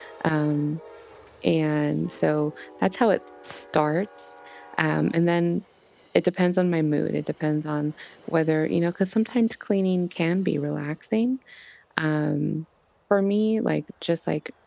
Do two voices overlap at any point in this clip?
No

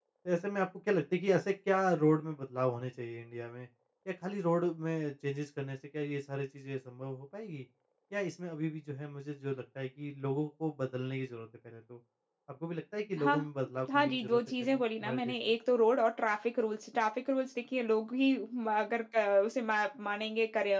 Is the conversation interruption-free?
No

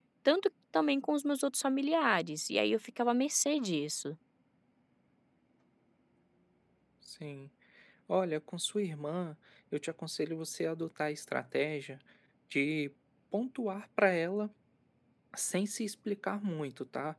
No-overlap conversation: Yes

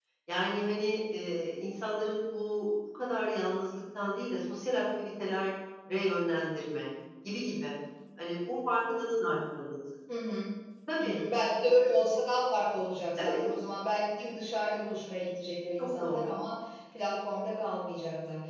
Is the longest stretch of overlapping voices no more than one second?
Yes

